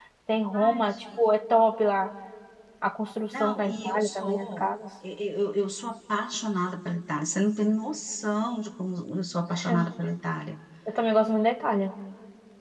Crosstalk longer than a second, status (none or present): present